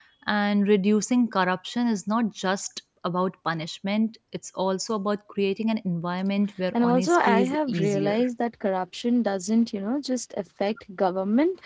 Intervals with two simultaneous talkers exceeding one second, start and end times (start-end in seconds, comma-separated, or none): 6.8-8.2